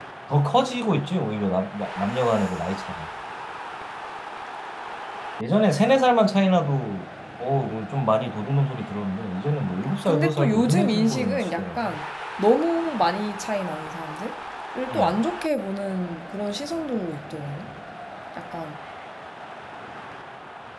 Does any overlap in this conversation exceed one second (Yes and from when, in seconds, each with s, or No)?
Yes, from 10.1 s